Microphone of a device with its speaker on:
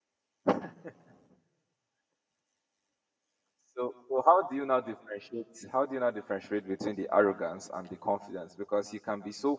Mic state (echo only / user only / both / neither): user only